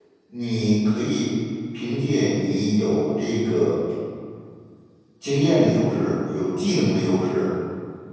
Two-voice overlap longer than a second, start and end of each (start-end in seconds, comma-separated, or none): none